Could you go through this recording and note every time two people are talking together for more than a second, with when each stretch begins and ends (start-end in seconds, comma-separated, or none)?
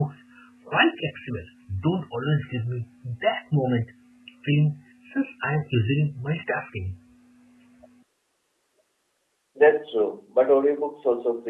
none